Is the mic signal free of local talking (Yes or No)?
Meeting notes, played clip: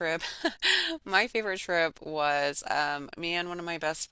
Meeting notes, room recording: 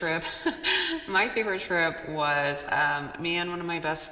Yes